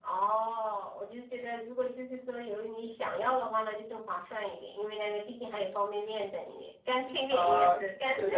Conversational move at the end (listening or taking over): taking over